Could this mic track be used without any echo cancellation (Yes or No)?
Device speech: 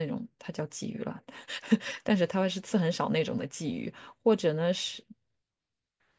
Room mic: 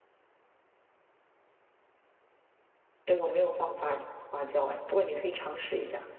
Yes